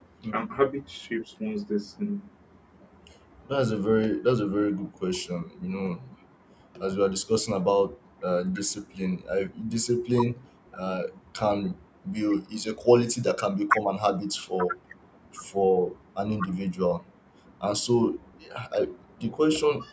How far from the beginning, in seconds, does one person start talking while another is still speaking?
none

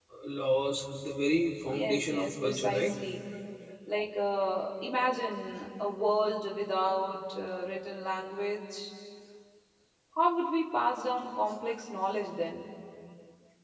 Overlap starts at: 1.7 s

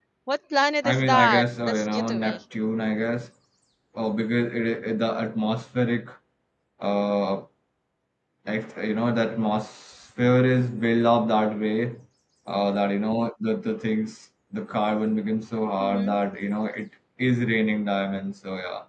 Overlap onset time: 0.8 s

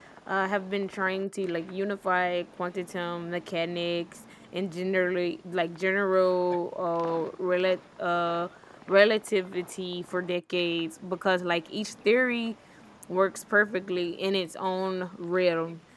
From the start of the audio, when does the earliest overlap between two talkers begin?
none

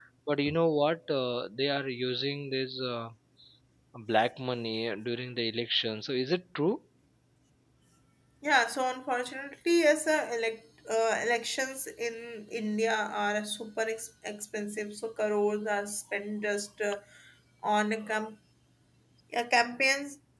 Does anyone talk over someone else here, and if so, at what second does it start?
none

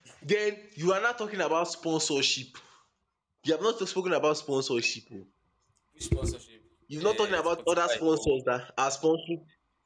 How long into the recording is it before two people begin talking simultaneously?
6.9 s

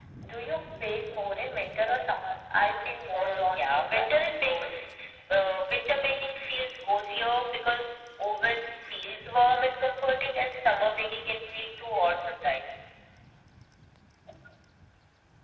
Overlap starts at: 3.1 s

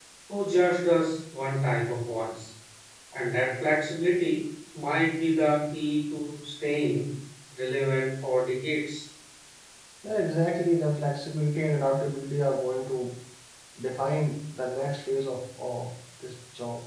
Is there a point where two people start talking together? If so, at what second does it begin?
none

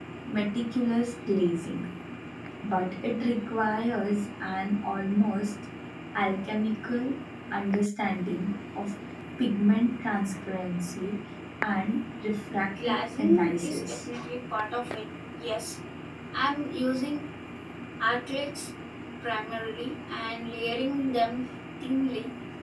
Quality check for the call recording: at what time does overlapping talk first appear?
12.7 s

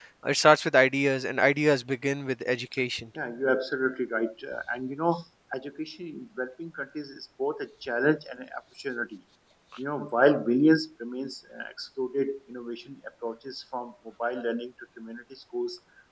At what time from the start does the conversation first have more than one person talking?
none

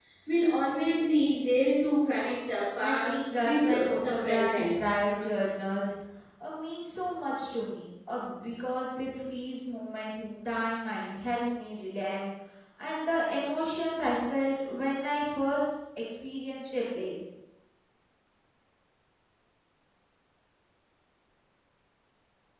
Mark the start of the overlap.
2.8 s

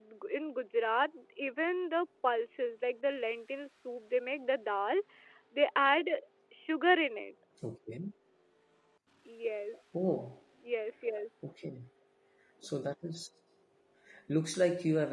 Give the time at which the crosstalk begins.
none

